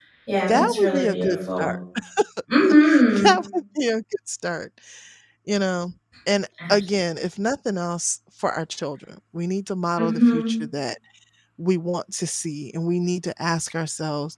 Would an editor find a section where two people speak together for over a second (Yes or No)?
Yes